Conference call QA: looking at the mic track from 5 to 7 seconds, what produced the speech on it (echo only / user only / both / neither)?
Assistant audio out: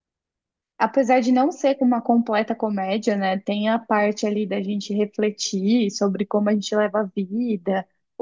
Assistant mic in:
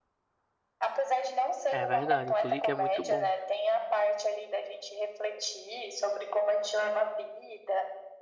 echo only